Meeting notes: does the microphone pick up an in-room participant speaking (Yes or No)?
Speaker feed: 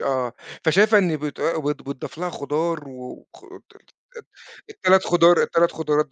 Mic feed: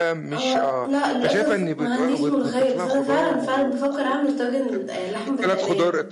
Yes